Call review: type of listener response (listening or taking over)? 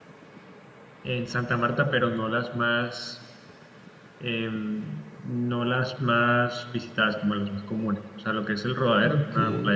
listening